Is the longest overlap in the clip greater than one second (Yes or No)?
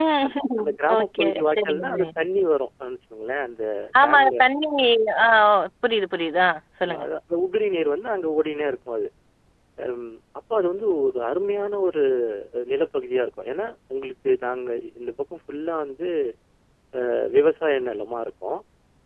Yes